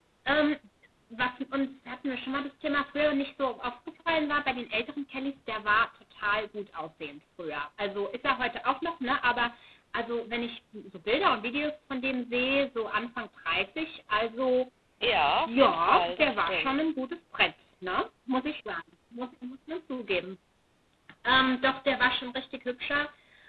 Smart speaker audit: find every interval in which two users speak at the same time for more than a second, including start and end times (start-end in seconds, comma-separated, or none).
15.5-16.8